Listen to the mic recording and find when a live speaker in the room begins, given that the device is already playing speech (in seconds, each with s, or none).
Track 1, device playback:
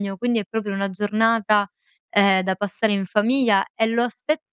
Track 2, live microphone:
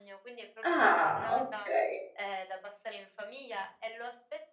0.6 s